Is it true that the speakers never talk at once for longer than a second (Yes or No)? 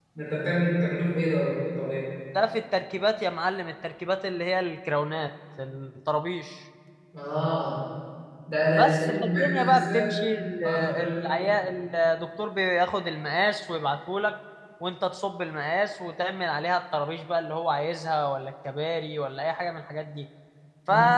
No